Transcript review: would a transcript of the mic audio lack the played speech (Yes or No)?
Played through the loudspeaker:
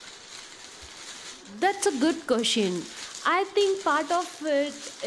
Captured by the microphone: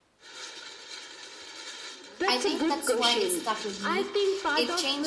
No